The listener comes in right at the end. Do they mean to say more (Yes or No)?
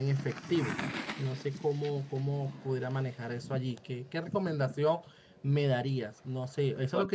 No